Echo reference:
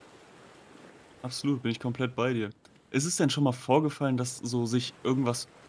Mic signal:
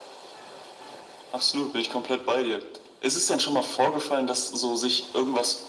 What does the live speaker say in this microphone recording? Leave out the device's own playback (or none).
none